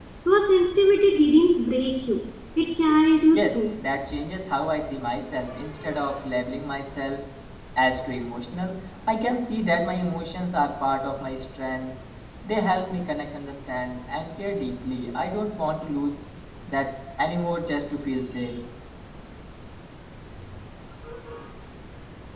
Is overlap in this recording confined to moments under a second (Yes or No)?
Yes